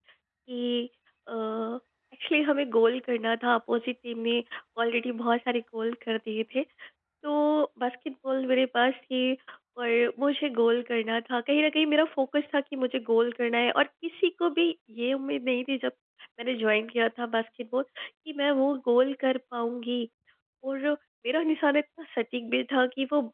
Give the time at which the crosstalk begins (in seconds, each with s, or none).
none